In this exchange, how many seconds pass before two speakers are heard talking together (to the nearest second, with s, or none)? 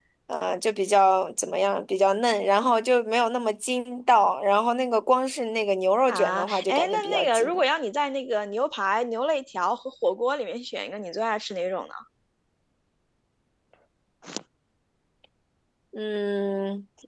6 s